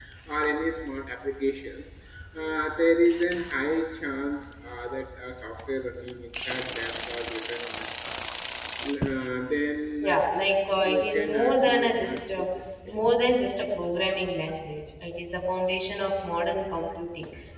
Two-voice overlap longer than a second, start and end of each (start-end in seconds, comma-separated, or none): 10.8-12.4